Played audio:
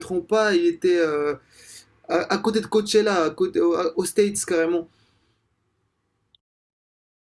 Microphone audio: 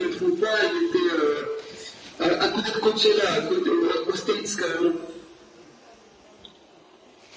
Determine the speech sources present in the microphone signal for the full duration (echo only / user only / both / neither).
echo only